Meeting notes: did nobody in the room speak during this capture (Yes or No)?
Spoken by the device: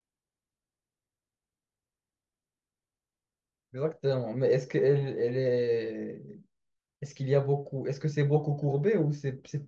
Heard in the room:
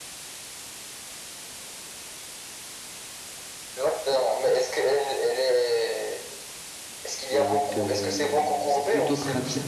No